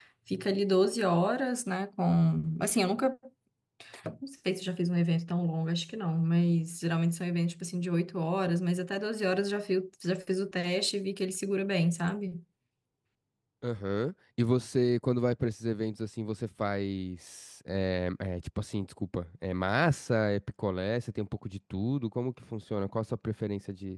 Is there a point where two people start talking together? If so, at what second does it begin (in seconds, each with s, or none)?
none